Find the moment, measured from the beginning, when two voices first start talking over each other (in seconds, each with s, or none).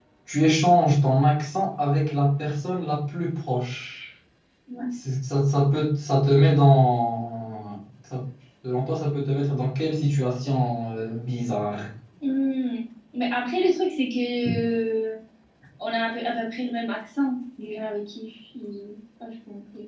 none